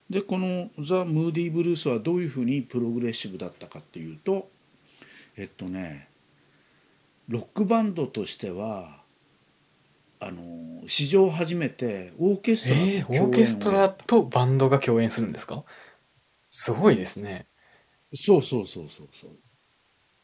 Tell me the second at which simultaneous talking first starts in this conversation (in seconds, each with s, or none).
12.6 s